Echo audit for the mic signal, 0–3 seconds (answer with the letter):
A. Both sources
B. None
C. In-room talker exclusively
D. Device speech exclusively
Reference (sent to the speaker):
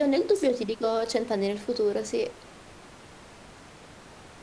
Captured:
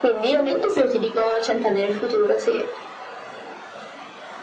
D